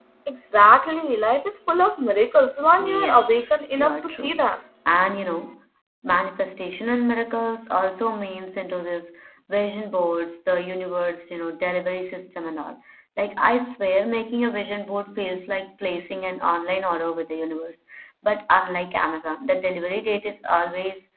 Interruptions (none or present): present